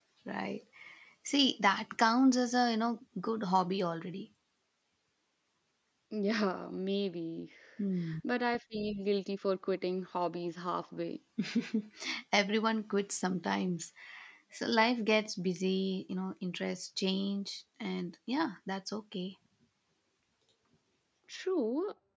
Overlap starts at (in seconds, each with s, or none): none